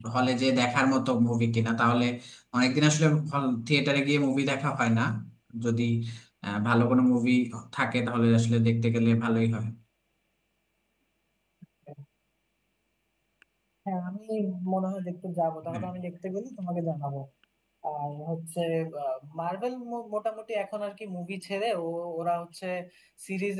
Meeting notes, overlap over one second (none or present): none